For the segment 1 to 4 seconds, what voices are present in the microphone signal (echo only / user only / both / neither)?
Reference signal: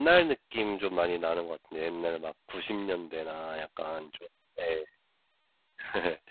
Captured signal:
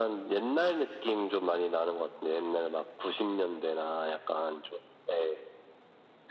echo only